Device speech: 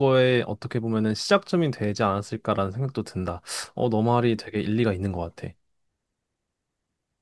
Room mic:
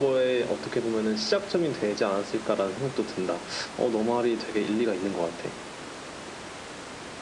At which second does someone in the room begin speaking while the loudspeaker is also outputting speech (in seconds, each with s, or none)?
none